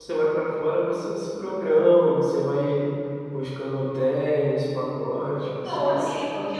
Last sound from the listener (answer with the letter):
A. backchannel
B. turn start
B